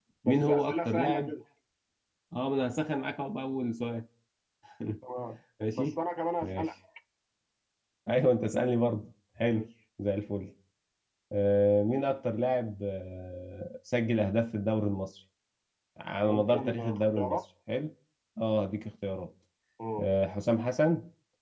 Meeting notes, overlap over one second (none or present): present